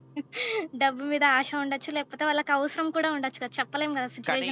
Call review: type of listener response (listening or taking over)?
taking over